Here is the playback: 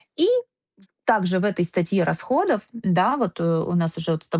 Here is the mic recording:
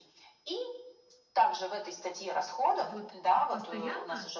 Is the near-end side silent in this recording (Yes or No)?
No